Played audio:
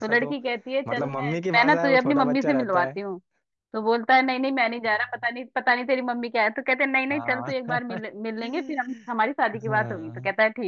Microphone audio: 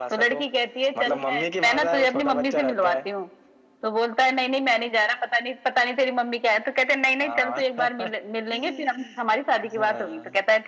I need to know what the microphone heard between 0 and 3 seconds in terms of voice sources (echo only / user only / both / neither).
echo only